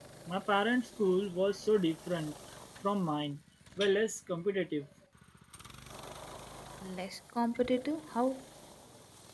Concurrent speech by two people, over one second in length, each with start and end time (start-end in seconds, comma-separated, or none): none